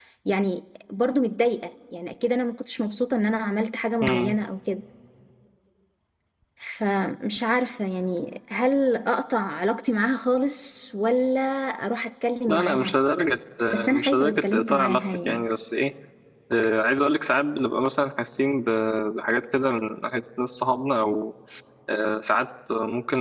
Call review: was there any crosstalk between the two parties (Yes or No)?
Yes